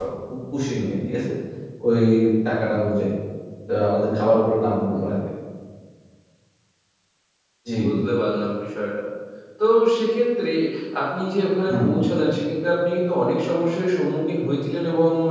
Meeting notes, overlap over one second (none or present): none